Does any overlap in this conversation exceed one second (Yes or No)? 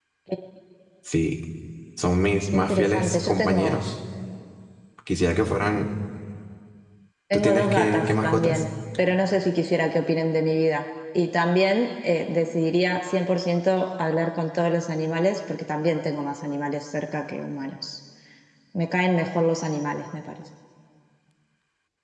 Yes